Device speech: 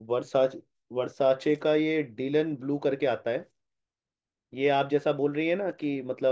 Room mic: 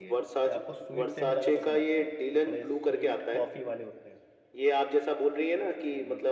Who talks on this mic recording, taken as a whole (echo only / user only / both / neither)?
both